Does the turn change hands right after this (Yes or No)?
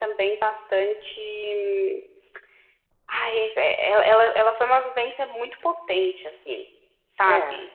No